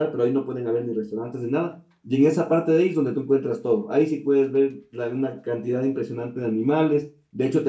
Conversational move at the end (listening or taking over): listening